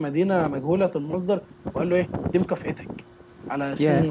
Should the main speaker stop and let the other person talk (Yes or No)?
No